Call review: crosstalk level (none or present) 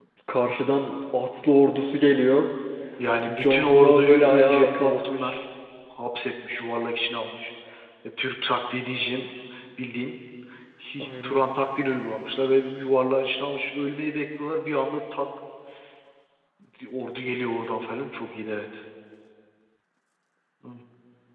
present